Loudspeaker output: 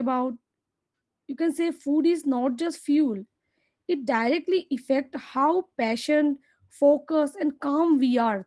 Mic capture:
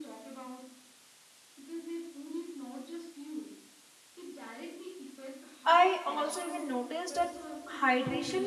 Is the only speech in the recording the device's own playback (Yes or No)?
No